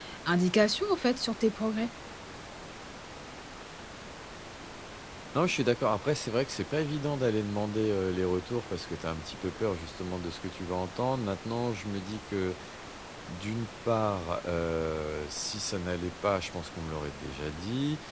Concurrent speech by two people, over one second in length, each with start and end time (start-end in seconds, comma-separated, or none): none